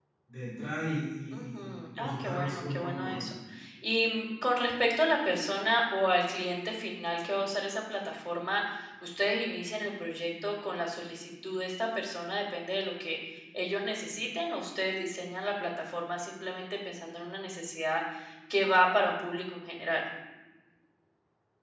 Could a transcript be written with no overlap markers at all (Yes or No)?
No